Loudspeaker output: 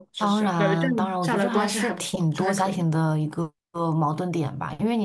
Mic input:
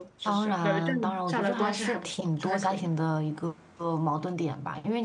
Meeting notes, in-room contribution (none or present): none